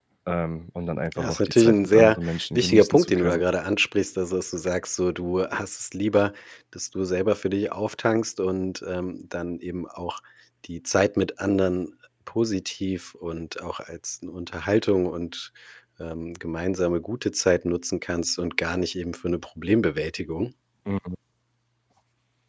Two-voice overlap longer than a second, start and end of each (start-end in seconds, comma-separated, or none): 1.2-3.4